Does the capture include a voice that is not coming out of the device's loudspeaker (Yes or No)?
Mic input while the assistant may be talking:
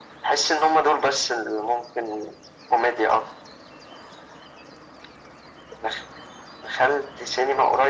No